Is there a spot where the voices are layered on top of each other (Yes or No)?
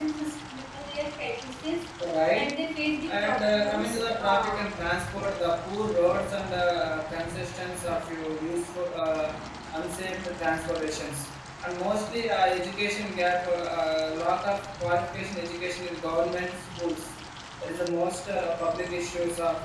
Yes